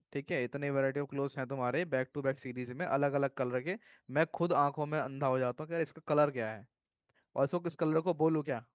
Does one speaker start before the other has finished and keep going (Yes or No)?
No